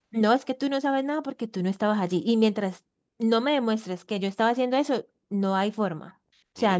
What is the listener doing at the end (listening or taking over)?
taking over